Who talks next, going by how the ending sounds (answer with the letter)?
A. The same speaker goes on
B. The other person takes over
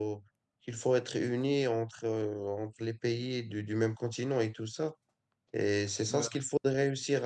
A